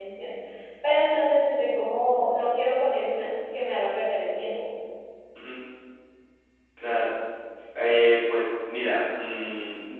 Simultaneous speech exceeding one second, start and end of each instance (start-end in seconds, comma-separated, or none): none